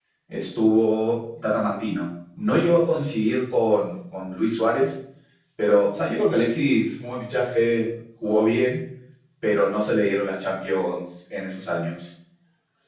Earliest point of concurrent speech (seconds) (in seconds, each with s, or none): none